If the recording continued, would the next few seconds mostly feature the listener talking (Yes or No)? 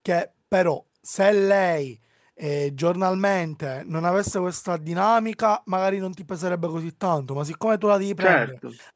No